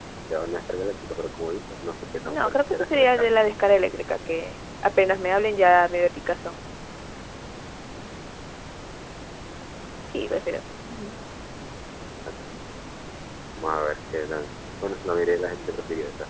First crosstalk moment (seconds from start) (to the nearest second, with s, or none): 2 s